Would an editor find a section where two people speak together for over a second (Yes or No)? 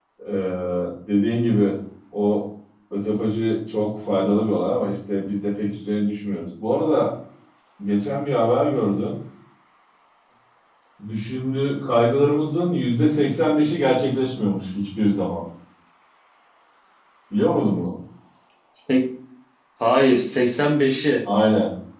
No